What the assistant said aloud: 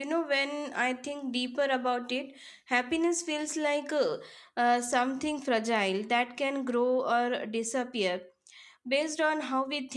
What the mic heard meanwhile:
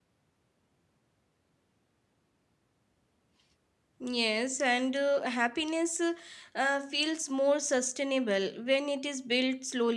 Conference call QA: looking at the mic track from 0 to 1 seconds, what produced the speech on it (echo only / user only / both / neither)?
neither